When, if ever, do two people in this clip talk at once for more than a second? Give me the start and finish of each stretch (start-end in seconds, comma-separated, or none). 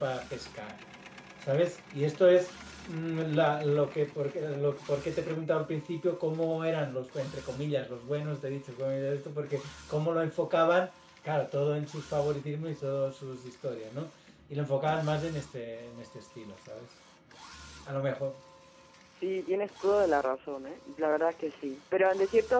none